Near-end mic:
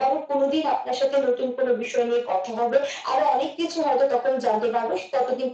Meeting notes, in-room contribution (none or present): none